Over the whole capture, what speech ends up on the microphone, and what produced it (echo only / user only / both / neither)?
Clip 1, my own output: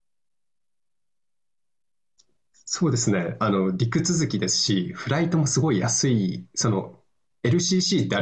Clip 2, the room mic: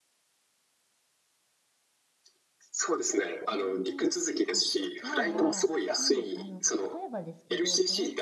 both